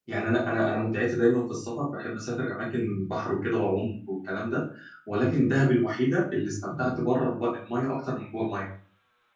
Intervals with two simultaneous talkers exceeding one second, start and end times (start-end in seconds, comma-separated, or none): none